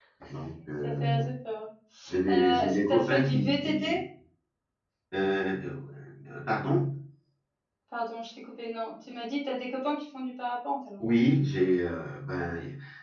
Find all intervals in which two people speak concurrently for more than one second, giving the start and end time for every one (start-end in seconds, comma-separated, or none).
2.3-4.0